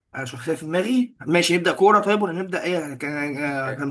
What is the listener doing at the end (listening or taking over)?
taking over